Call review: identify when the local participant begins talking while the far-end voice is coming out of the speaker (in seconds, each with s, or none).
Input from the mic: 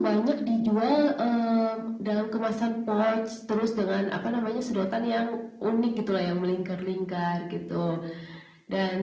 none